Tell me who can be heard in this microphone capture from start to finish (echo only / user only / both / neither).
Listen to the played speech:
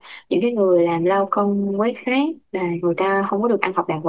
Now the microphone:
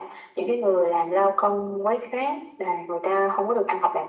echo only